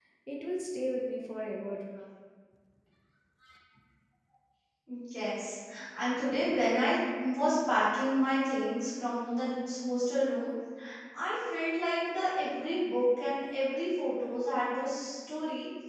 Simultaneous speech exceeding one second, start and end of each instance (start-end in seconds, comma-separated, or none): none